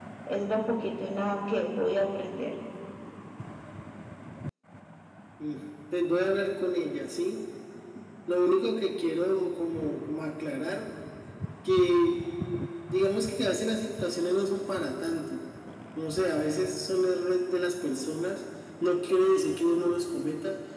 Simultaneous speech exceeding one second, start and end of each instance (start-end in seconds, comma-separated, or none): none